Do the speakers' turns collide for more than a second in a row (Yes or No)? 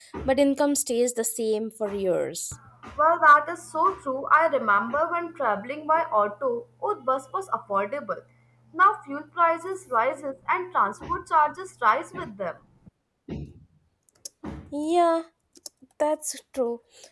No